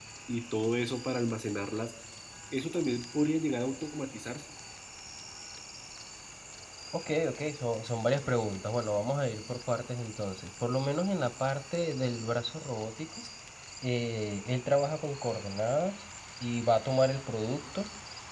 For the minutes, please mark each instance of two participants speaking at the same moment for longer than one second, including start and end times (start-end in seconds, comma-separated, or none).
none